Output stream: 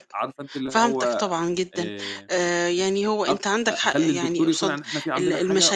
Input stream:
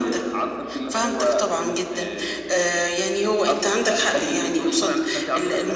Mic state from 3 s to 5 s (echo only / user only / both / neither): echo only